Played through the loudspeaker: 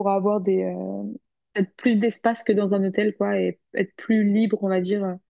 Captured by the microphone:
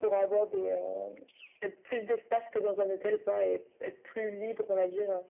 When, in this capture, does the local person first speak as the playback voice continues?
none

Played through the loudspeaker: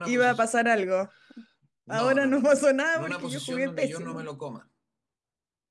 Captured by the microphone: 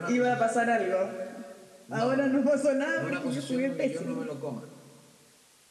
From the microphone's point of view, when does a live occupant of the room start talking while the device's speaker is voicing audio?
none

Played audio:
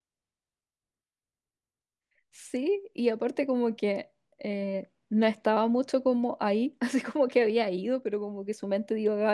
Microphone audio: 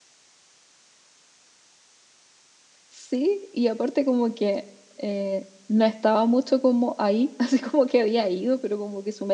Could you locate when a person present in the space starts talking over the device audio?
none

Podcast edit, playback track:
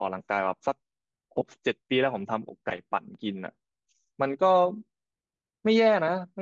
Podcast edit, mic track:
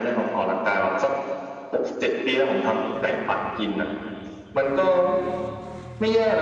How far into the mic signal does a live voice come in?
none

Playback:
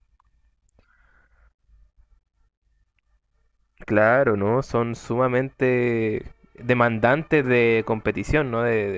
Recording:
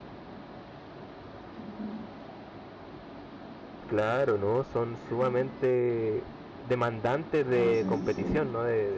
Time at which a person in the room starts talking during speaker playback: 7.5 s

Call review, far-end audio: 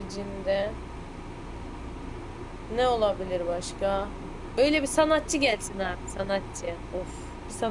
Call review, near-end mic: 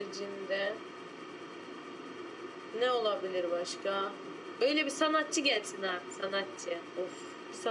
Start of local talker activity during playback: none

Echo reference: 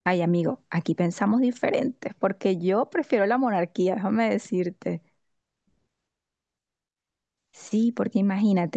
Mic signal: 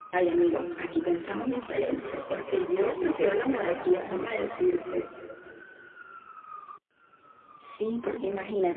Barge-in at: none

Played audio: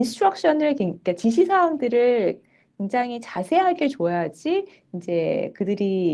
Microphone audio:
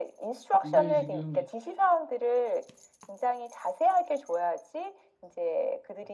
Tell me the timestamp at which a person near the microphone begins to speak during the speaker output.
0.6 s

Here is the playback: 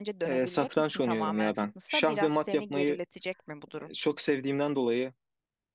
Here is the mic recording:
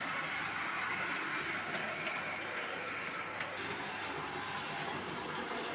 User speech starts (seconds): none

